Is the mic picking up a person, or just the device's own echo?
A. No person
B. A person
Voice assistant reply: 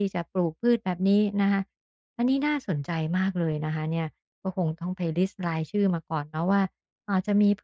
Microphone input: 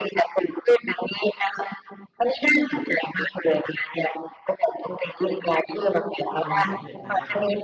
B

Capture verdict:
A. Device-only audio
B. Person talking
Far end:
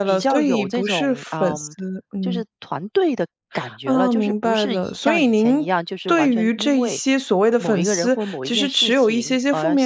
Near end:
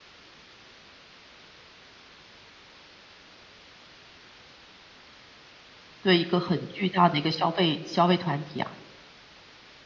B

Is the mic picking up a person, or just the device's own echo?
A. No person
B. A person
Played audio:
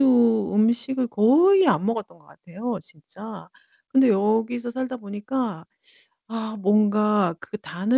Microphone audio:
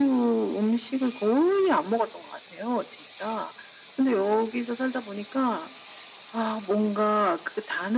A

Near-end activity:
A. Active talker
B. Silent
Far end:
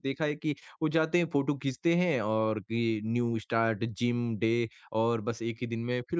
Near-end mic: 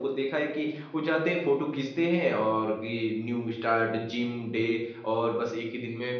B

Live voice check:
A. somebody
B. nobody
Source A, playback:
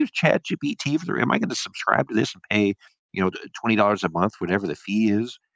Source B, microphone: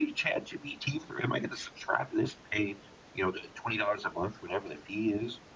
B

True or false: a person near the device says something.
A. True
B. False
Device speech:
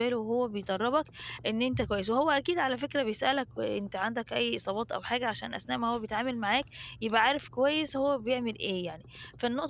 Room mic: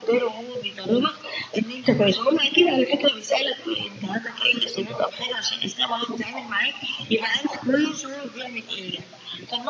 B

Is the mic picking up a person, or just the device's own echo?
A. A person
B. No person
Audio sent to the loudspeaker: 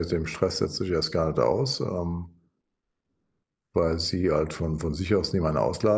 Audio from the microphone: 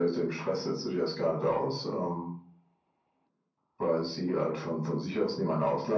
B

